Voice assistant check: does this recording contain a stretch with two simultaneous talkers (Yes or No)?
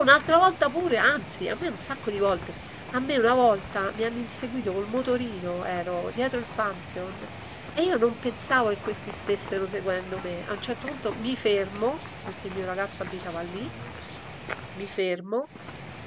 No